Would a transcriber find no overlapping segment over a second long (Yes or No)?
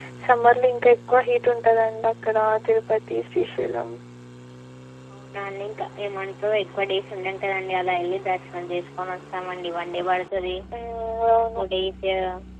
Yes